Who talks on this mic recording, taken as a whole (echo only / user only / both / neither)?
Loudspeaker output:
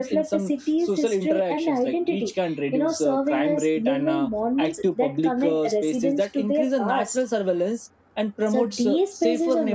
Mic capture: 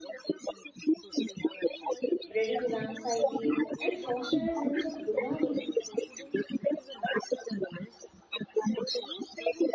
both